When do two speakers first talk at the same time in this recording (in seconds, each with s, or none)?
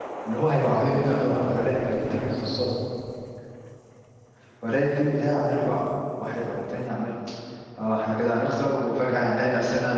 0.6 s